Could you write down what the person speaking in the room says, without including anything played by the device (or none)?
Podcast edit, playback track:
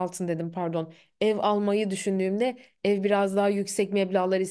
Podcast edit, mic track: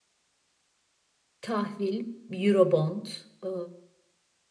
Tahvil, Eurobond, e,